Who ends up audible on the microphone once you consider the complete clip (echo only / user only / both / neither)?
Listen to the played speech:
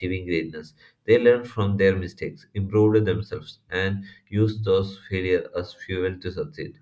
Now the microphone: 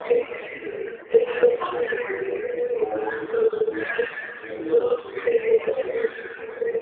echo only